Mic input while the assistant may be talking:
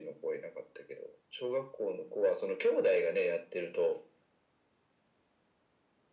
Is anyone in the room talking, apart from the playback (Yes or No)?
No